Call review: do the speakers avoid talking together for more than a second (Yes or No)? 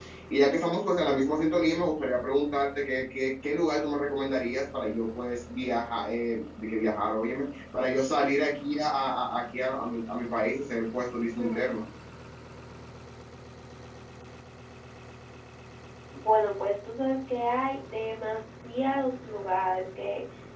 Yes